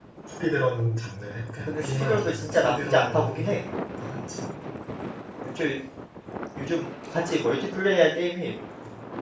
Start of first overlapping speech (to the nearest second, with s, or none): 2 s